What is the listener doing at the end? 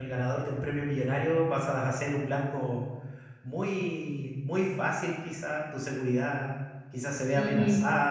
listening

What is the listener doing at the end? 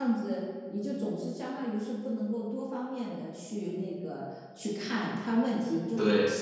listening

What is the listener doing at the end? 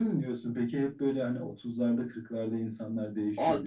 taking over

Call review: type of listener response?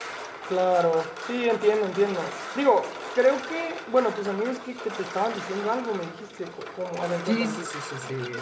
taking over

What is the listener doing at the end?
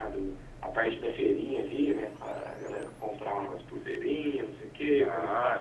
taking over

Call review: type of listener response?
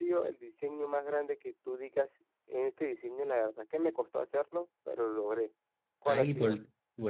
taking over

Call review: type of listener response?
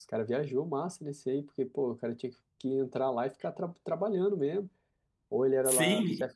taking over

